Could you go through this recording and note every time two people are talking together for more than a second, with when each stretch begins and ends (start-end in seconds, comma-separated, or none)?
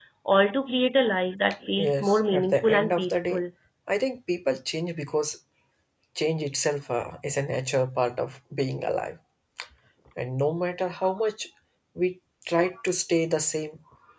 1.8-3.4